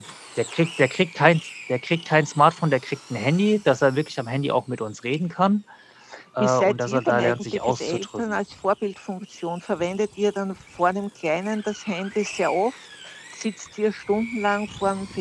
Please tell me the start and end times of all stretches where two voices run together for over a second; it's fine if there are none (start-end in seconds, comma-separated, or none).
6.4-8.4